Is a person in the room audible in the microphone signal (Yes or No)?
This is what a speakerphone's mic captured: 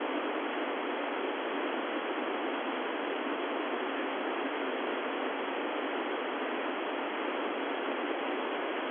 No